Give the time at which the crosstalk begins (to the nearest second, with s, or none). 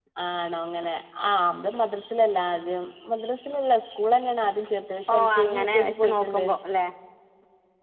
5 s